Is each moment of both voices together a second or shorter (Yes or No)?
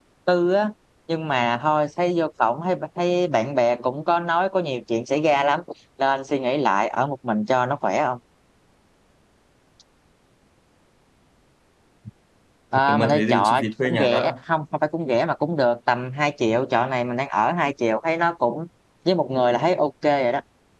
No